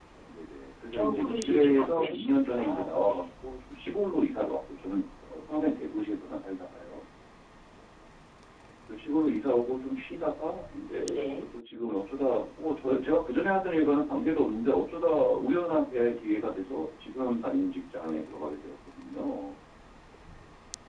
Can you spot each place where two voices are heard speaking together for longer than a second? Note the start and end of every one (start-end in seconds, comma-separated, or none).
0.9-3.2